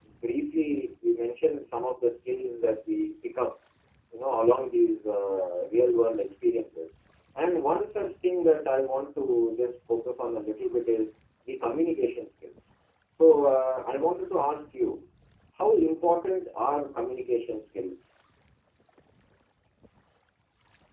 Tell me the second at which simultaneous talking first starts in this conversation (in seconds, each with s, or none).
none